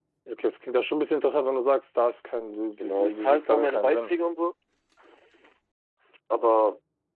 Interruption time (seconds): 2.8 s

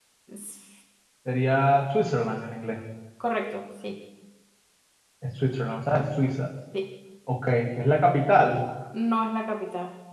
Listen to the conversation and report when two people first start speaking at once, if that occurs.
none

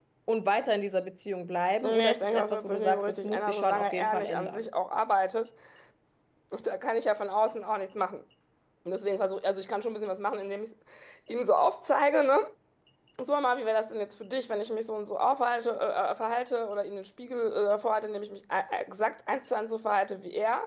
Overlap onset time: 1.8 s

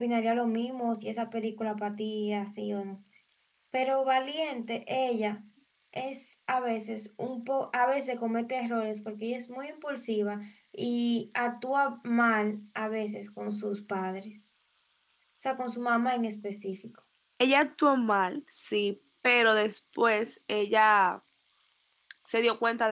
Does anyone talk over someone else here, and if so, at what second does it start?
none

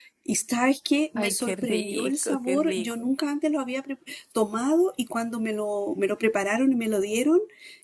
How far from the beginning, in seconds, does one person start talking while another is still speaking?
1.2 s

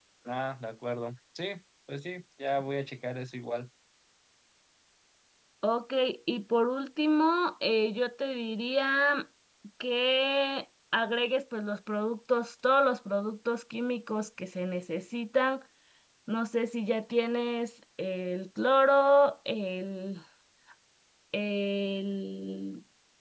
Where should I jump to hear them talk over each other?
none

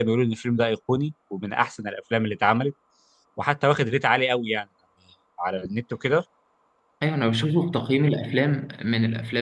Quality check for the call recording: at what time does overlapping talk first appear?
none

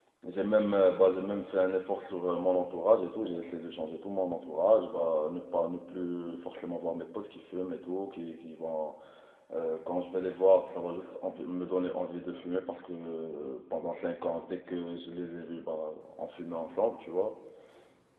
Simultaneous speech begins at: none

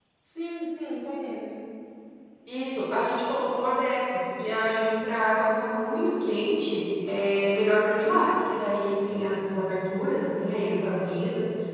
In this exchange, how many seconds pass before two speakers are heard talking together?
none

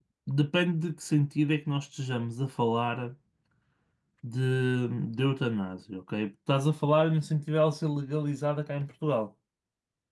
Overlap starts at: none

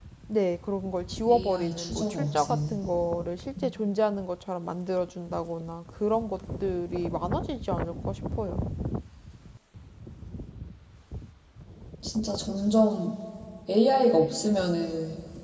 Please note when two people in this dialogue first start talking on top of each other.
1.3 s

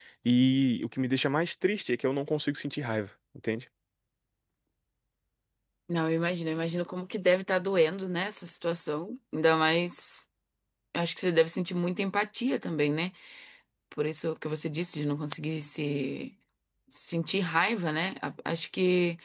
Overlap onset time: none

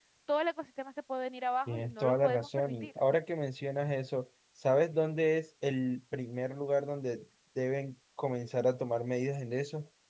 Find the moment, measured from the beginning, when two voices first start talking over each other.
1.7 s

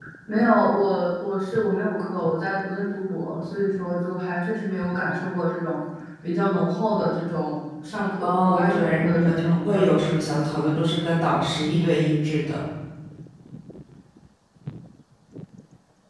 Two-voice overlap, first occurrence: 8.2 s

